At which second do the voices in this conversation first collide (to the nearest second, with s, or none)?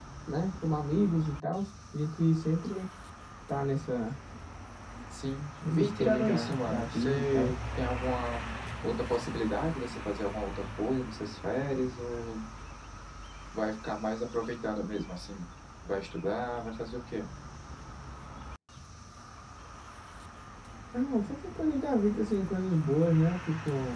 6 s